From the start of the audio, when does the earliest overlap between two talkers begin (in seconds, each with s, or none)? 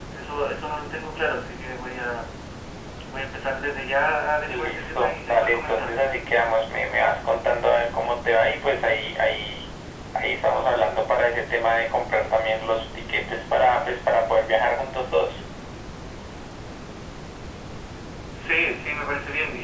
4.5 s